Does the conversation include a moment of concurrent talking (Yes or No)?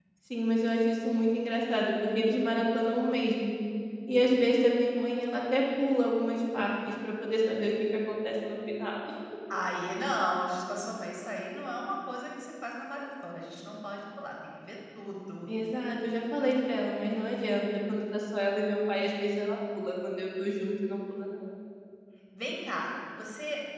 No